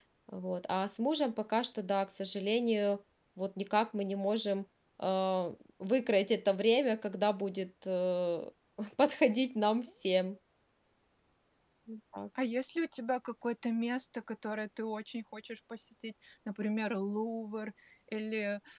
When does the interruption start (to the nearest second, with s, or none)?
none